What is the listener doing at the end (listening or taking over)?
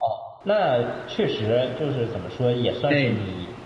listening